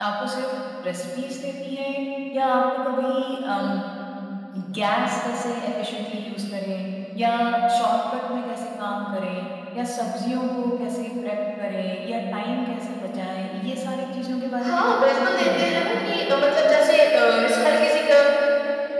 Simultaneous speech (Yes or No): Yes